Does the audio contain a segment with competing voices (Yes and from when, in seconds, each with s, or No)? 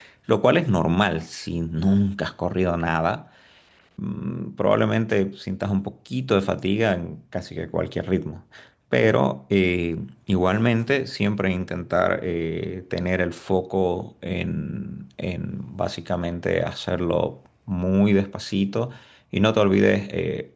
No